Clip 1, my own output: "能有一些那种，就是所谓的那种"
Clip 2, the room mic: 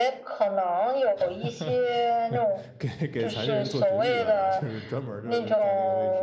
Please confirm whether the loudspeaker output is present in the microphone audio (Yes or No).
Yes